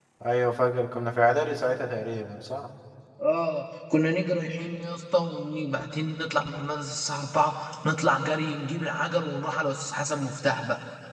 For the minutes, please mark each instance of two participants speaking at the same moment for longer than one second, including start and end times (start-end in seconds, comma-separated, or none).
none